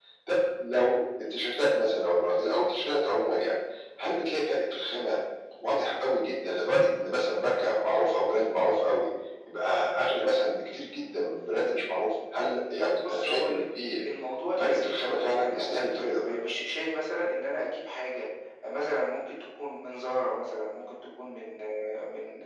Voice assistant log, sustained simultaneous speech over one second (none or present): present